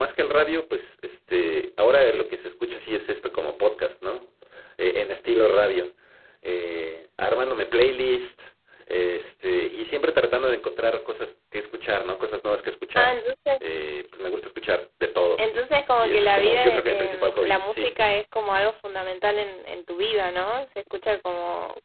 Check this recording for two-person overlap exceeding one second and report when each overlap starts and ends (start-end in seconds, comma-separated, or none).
16.0-17.9